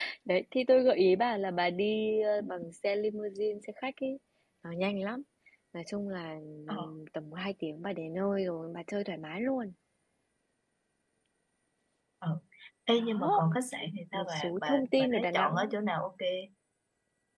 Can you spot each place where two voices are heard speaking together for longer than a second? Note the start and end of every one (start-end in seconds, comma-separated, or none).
14.1-15.7